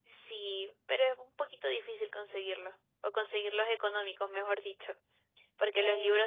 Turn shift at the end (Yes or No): No